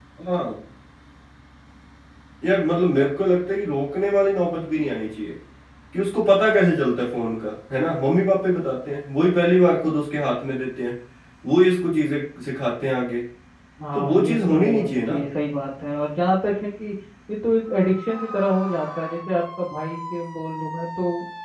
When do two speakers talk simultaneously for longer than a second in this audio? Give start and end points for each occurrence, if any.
13.9-15.1

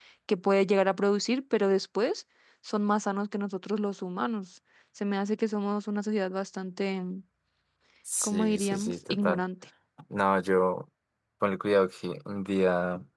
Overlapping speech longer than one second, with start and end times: 8.2-9.4

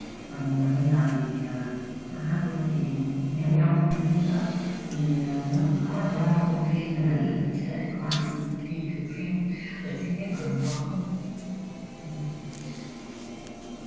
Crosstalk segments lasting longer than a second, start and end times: 5.9-8.2

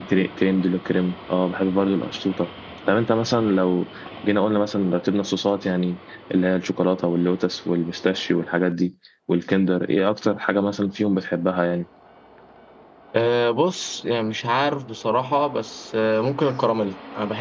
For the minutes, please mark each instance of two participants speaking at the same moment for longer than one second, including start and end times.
none

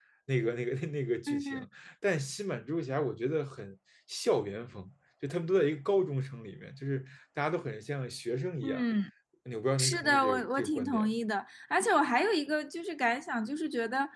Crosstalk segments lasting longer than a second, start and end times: 9.8-11.2

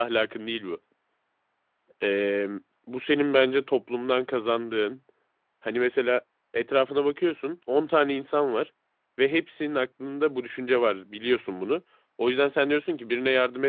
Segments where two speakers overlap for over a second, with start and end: none

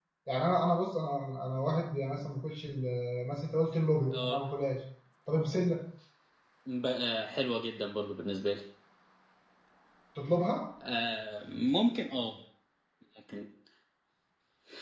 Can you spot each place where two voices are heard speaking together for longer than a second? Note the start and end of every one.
none

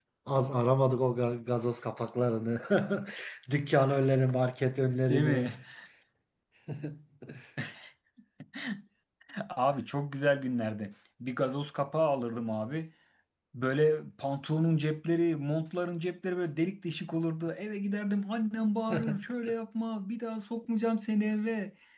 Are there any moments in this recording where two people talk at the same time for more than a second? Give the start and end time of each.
none

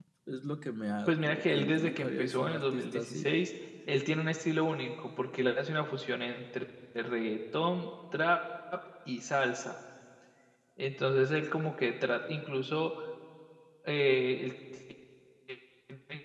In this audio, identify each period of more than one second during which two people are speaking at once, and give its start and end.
1.1-3.3

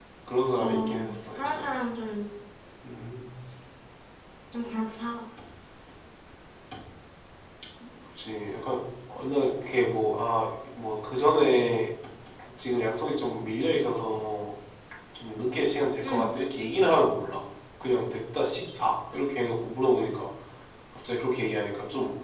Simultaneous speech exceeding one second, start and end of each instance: 0.6-1.8

